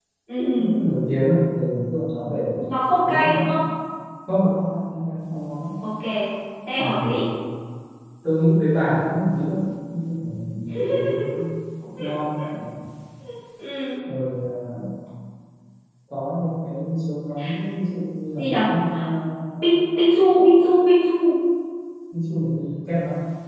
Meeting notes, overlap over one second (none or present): none